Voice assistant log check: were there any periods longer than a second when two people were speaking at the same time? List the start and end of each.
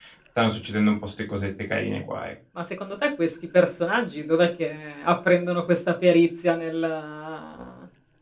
none

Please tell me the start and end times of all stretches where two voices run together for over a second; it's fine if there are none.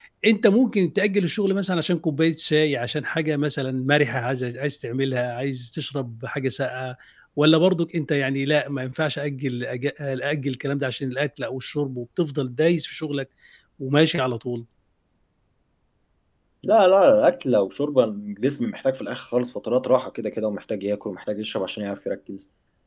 none

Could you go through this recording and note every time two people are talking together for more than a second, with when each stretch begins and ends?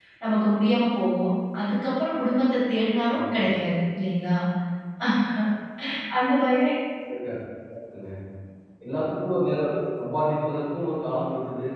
none

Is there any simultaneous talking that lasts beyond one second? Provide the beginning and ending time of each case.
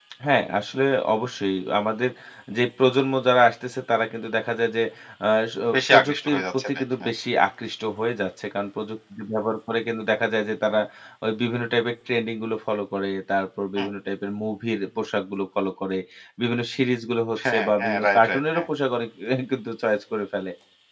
5.7-7.1, 17.4-18.7

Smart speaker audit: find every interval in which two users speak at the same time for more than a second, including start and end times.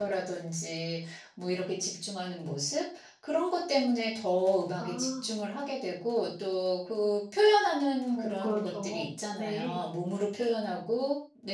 8.2-9.8

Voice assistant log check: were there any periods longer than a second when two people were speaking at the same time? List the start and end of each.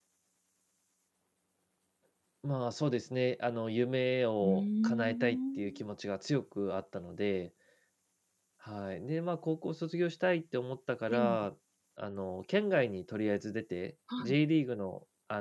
4.4-5.8

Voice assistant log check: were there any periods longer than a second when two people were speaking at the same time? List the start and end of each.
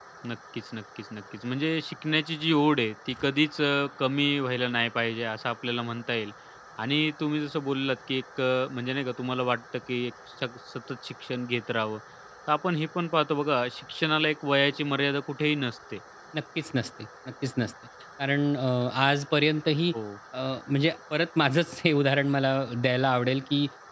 none

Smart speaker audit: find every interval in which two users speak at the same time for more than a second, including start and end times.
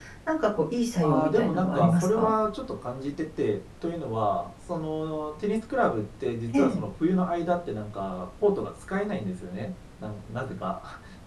1.0-2.3

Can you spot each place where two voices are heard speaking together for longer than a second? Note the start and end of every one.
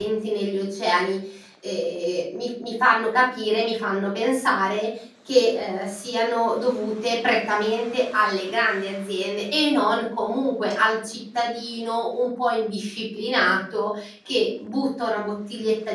none

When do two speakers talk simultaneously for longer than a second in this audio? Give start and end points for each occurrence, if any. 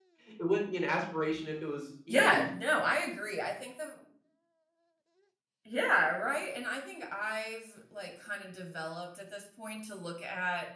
none

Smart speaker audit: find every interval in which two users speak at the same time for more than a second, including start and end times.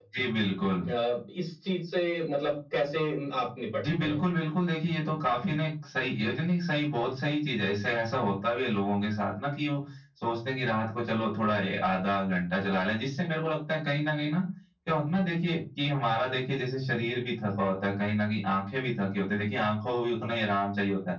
none

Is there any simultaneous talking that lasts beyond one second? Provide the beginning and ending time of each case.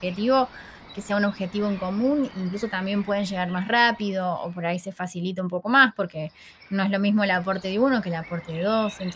none

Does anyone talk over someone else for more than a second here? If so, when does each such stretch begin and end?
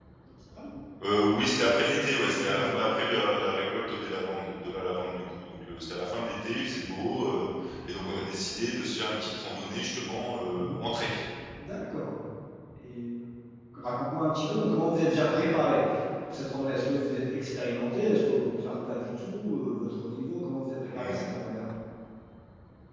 none

